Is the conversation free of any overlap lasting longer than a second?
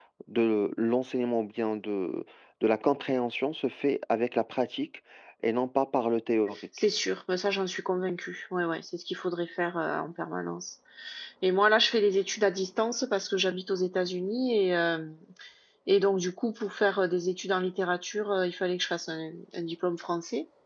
Yes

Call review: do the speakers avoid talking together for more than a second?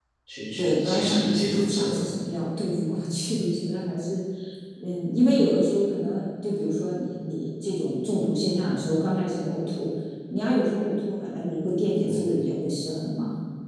No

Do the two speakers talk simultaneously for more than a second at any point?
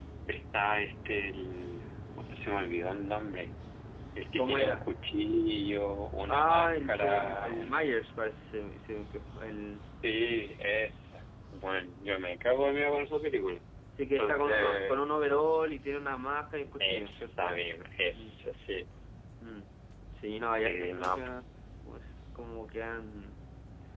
Yes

